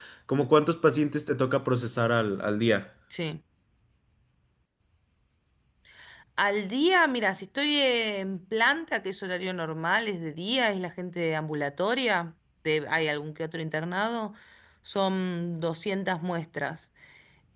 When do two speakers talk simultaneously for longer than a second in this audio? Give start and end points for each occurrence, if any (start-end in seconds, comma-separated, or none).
none